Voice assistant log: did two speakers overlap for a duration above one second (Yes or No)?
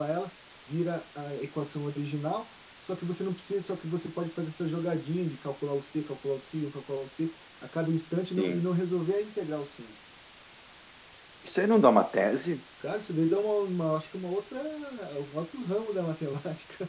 No